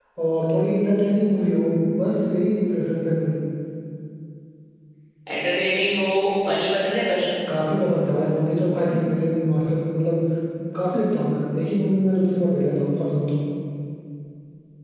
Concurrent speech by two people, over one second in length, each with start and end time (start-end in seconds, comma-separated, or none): none